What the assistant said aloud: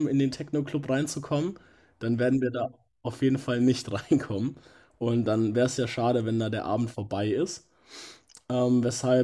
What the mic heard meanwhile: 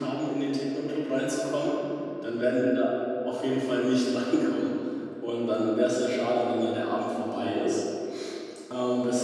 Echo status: present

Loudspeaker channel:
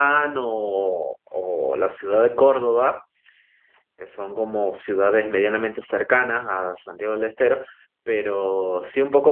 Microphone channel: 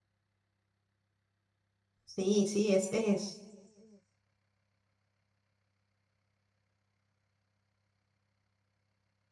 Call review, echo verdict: none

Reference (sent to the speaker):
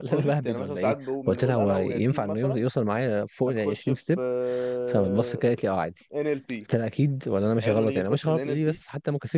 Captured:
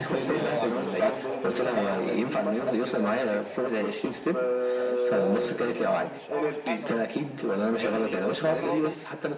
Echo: present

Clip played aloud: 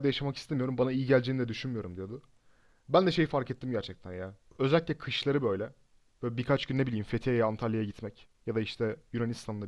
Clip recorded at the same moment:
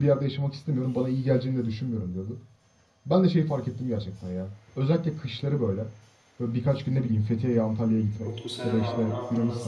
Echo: present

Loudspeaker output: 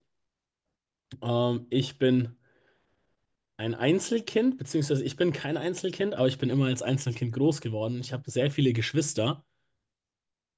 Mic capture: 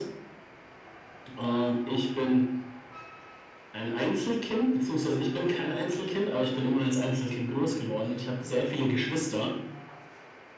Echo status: present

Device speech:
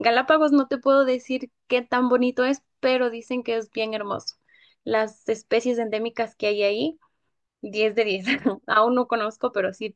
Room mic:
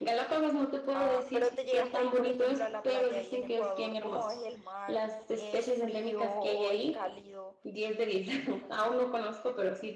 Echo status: present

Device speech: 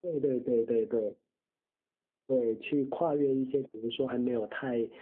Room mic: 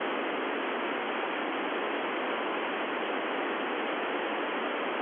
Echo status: none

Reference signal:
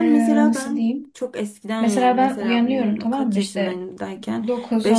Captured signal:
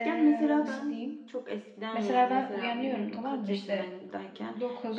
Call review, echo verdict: present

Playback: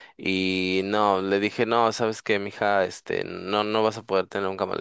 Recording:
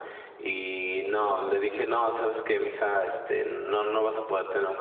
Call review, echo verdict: present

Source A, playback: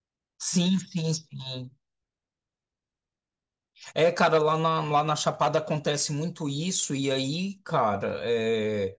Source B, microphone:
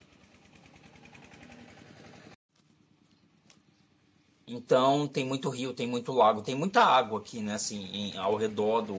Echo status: none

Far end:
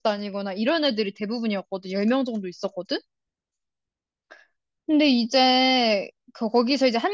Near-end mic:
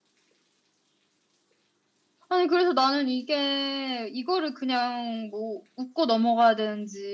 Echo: none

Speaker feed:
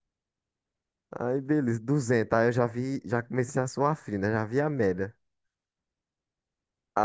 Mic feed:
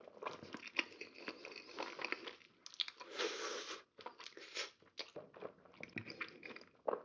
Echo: none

